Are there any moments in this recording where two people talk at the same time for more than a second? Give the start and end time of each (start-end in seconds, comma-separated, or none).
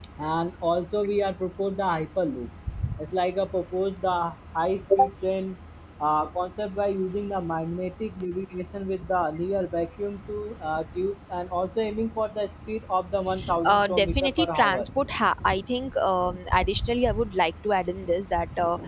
13.6-14.9